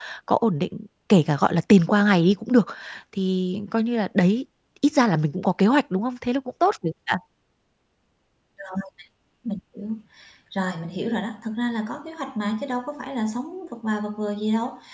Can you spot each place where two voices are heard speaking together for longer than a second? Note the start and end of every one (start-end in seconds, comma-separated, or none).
none